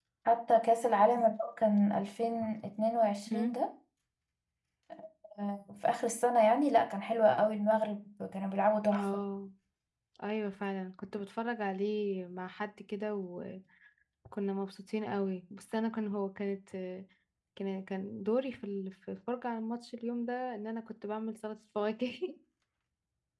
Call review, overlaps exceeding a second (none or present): none